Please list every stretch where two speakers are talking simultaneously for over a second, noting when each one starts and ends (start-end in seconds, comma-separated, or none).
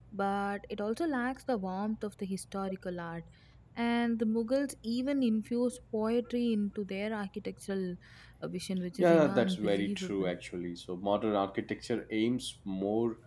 9.0-10.3